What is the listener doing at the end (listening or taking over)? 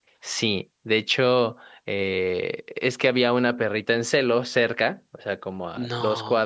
listening